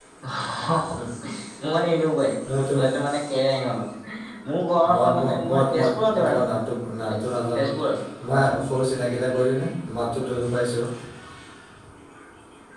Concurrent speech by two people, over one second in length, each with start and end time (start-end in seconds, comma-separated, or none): 5.0-6.4